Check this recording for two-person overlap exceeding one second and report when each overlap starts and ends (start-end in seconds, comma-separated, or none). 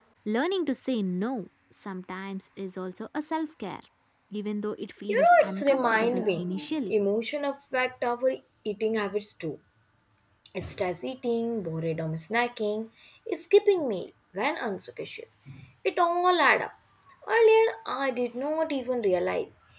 5.1-6.9